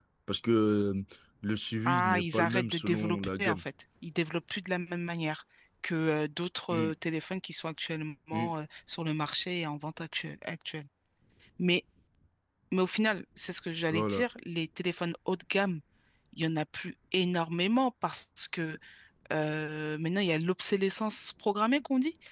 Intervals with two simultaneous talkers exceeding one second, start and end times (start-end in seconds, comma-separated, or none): 1.8-3.6